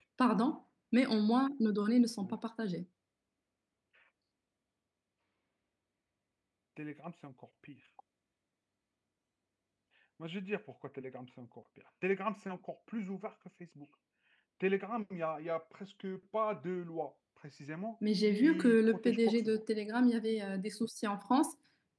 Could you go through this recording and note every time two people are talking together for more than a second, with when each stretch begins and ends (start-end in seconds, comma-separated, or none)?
18.4-19.6